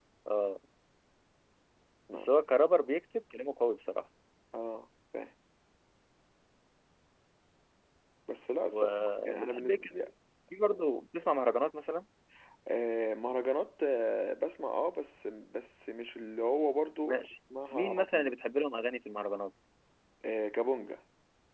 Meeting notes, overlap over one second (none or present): present